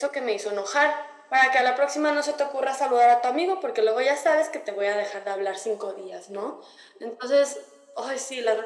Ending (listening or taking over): taking over